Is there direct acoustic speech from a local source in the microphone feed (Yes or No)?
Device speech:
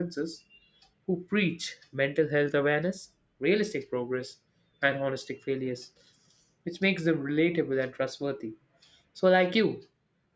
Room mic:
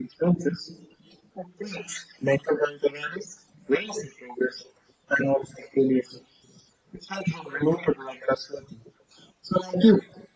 No